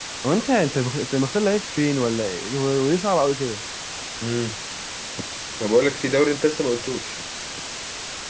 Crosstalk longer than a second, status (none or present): none